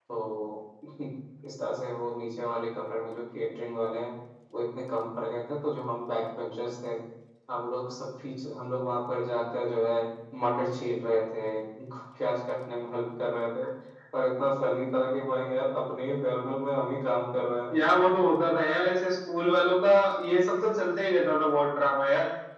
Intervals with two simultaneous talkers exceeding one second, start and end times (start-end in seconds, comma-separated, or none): none